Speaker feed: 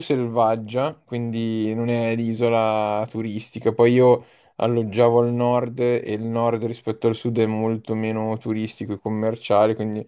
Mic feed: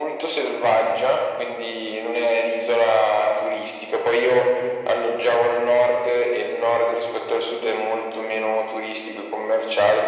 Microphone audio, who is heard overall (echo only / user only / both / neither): echo only